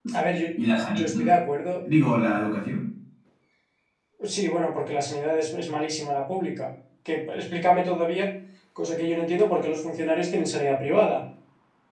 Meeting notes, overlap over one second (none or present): none